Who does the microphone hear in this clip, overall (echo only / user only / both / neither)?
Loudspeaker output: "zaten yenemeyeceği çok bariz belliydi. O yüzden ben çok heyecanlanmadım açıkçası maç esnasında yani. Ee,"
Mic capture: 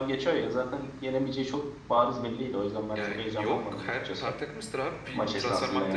both